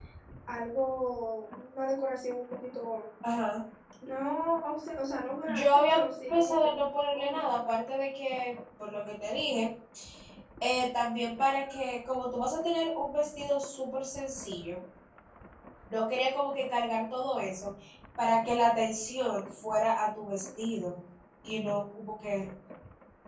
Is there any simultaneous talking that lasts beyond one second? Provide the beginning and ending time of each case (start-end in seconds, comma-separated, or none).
5.5-6.7